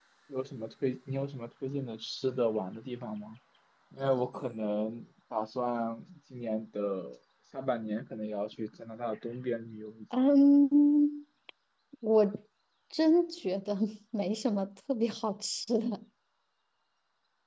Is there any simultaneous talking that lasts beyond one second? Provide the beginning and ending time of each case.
none

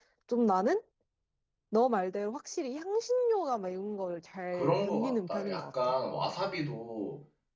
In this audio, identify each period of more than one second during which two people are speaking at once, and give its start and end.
4.5-5.9

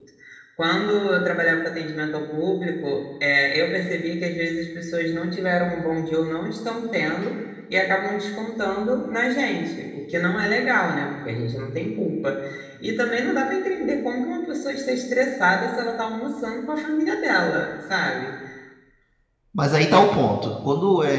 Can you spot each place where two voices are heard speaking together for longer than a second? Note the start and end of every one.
none

